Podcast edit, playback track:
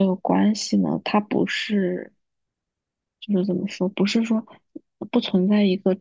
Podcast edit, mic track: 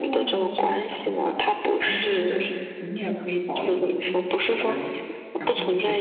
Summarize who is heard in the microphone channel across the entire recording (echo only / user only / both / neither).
both